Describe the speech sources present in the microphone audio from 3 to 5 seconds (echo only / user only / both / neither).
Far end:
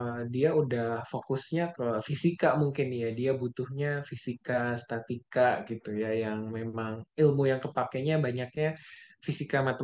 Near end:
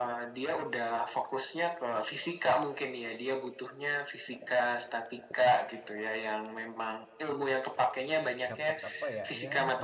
echo only